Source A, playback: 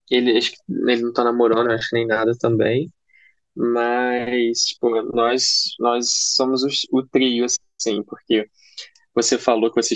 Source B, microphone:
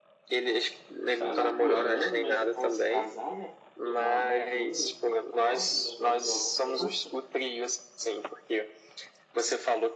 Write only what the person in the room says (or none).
tá namorando, mas tá quase casado, né? Porque mora junto e tal, namora já há um tempo.